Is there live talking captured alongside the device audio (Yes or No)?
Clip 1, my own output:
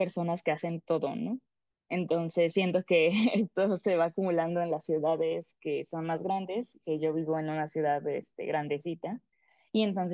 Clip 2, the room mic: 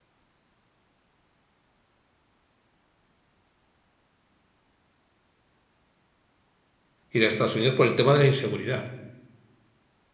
Yes